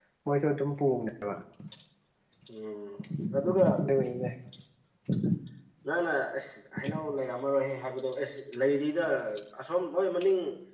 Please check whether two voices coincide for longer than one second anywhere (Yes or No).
No